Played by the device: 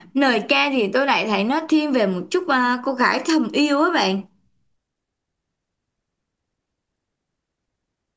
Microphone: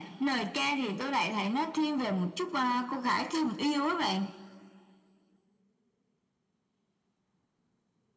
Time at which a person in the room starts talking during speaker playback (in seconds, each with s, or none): none